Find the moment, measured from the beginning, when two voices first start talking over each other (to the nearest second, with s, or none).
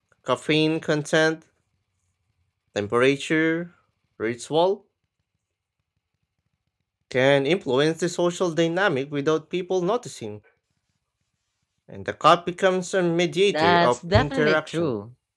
13 s